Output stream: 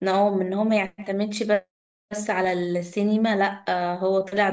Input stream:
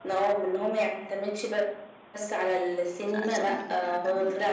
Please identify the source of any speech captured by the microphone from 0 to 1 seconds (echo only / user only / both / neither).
echo only